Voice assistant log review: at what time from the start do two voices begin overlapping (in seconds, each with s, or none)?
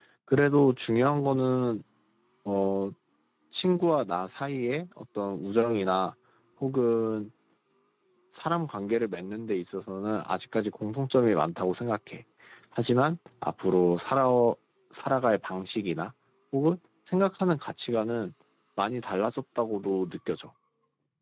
none